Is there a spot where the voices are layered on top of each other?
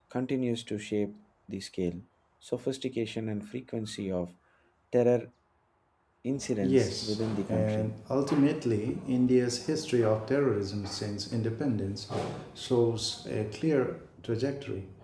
Yes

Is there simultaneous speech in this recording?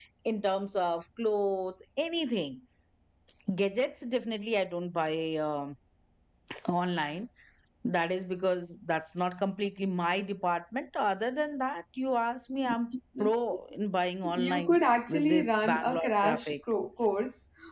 Yes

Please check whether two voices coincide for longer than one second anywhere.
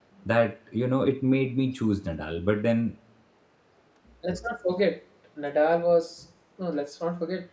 No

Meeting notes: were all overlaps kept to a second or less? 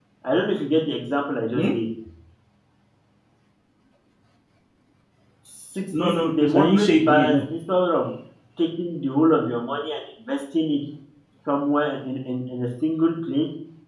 No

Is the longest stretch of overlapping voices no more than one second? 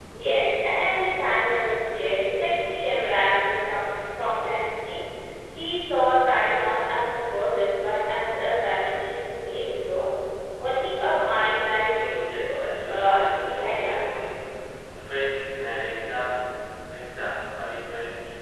No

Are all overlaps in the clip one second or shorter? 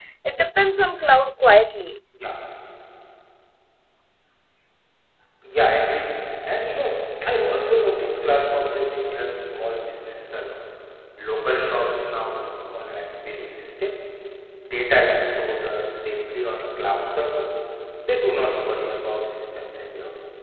Yes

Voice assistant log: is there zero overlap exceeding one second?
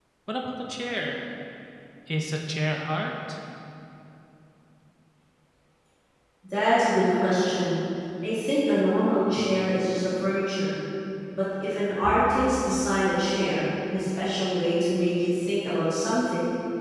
Yes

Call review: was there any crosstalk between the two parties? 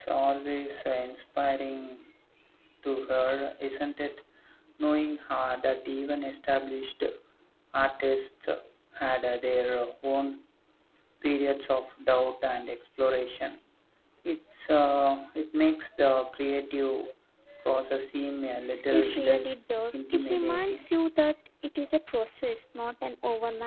Yes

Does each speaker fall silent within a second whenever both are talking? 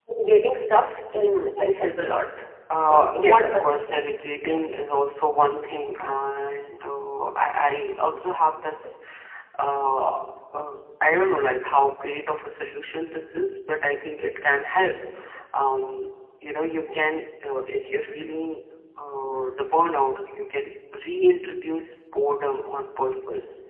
No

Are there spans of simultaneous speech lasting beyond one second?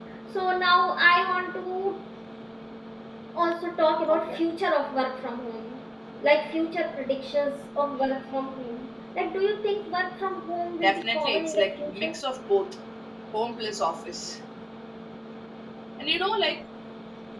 Yes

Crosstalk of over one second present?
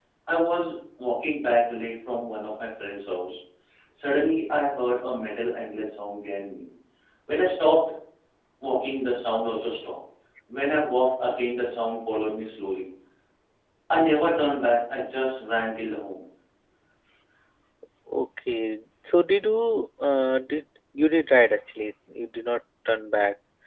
No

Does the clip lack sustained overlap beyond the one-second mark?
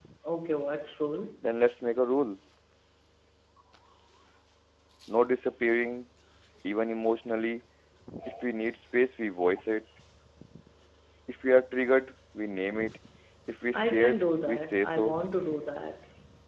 No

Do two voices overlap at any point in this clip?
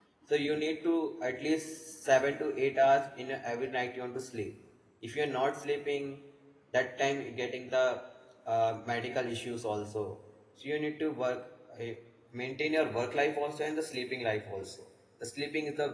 No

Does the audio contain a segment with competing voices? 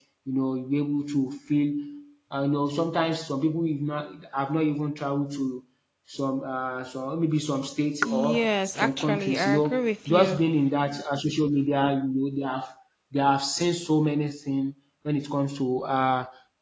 Yes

